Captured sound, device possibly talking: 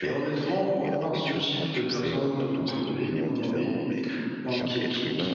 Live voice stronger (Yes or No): Yes